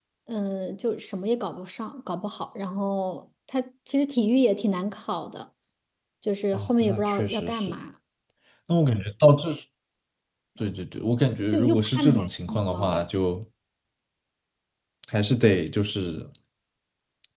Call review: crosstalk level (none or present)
present